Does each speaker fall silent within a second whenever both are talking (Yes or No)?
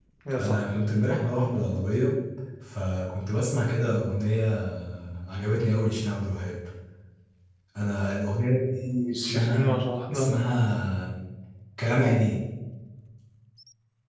No